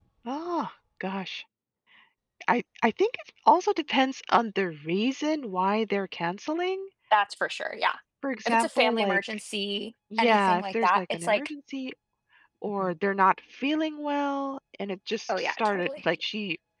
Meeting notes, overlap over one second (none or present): present